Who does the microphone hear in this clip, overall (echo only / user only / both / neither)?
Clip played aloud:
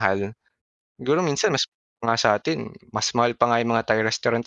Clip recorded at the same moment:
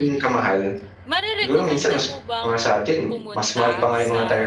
both